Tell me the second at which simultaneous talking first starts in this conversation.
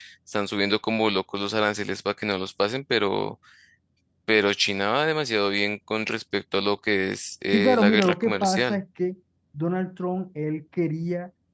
8 s

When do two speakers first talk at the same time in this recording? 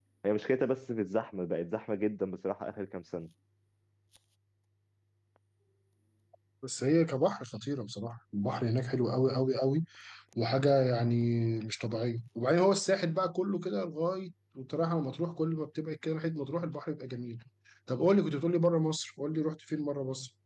none

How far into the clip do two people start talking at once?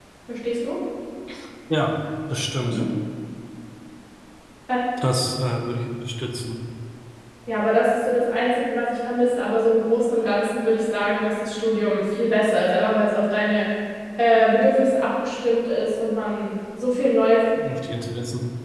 none

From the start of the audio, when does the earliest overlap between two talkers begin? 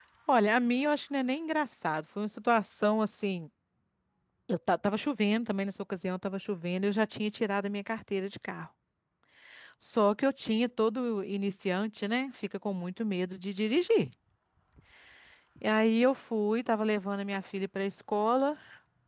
none

